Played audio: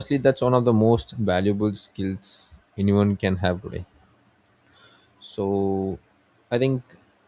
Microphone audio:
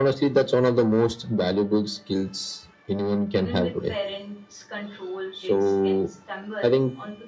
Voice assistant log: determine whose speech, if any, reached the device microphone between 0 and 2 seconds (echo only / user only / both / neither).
echo only